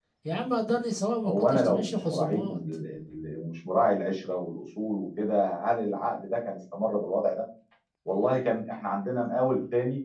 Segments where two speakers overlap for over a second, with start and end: 1.2-2.6

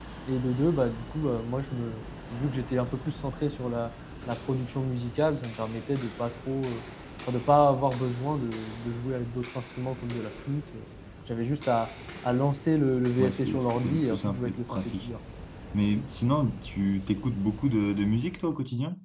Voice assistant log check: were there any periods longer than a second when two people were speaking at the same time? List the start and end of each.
13.2-15.1

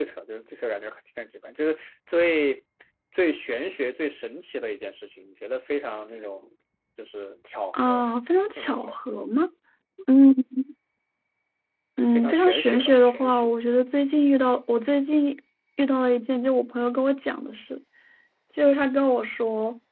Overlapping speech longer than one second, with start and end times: 12.1-13.5

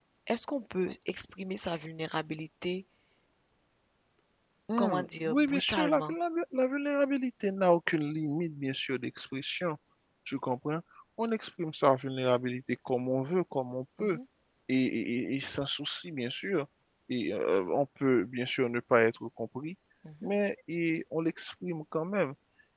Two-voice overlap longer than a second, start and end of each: 4.8-6.1

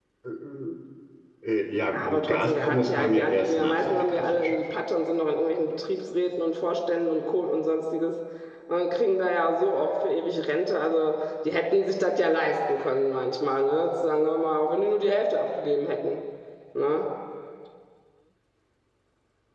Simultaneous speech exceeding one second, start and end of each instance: 1.9-4.6

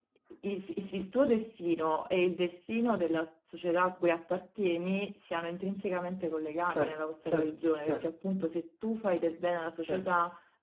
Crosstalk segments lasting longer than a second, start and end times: 6.7-8.2

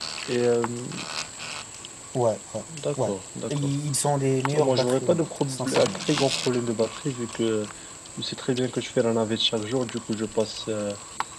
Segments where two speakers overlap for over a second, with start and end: 4.5-6.1

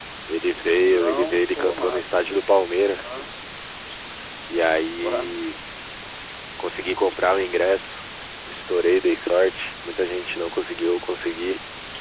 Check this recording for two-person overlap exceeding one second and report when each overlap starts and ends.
0.8-2.0

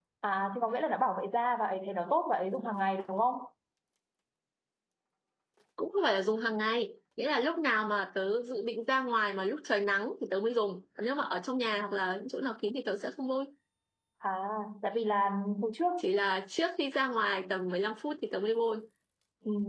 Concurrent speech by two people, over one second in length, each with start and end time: none

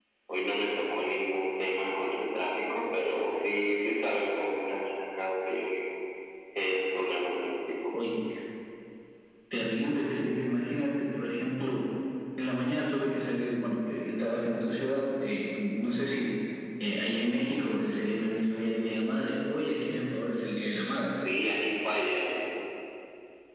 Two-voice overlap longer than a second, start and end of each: none

